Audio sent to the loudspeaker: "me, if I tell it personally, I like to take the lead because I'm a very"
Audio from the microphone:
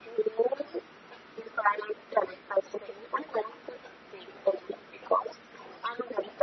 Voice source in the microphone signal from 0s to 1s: echo only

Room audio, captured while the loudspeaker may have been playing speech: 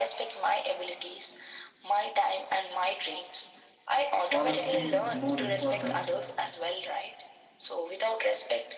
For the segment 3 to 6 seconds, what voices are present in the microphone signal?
both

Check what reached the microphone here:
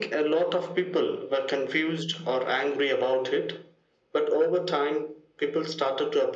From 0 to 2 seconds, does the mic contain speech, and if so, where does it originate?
echo only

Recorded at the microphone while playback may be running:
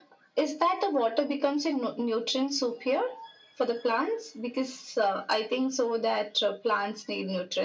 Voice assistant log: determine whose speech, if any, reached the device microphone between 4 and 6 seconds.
echo only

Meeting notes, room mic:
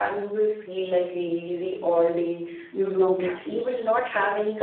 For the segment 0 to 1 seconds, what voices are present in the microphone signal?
echo only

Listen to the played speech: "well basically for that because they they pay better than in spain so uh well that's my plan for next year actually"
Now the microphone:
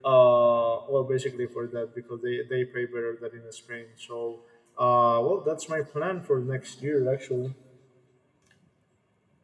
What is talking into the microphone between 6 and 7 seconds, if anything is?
echo only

